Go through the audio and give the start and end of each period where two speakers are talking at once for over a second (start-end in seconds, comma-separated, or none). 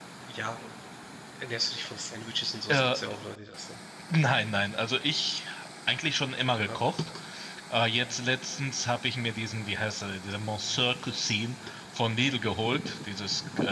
none